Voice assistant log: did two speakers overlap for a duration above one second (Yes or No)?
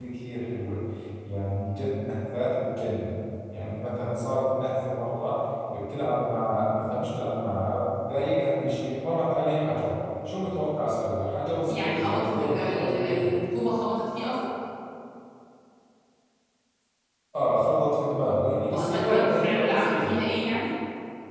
Yes